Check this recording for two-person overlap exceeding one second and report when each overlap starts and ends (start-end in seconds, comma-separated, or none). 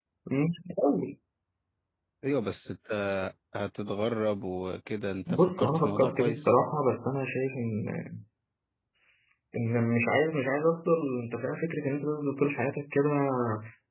5.3-6.5